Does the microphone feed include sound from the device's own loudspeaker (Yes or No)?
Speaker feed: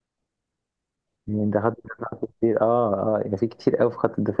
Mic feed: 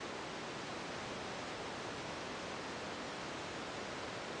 No